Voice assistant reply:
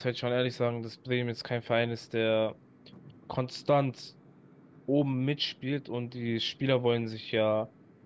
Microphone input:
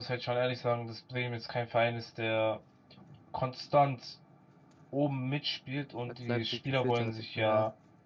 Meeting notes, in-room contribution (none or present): present